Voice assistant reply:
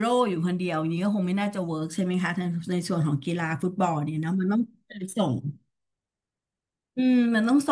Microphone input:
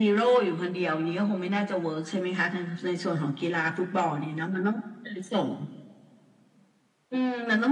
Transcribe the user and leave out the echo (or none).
none